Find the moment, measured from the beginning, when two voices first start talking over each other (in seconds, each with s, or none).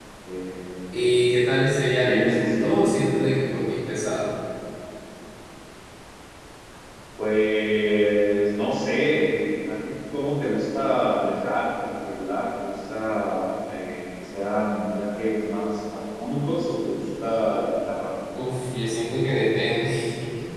2.0 s